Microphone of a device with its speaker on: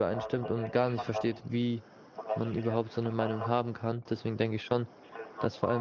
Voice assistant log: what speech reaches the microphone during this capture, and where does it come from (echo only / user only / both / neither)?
both